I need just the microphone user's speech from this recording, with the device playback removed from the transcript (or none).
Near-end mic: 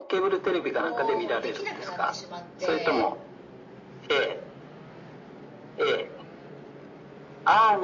をできなくなってしまって、